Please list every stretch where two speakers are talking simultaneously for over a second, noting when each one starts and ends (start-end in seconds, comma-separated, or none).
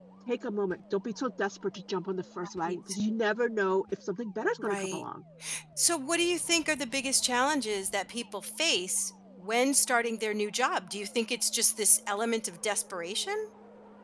none